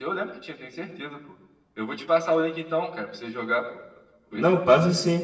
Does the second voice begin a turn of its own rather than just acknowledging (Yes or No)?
Yes